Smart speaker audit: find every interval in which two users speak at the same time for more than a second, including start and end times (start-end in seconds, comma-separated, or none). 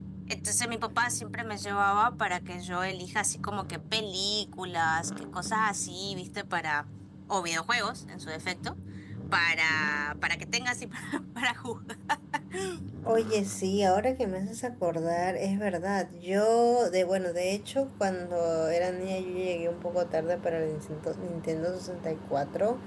none